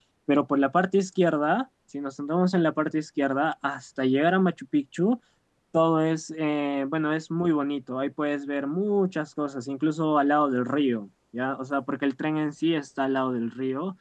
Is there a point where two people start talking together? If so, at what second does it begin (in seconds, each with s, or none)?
none